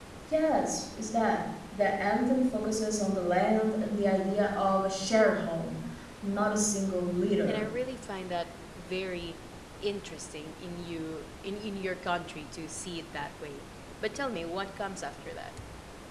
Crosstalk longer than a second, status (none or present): none